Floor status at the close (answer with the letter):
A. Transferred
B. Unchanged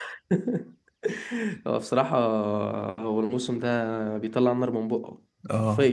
A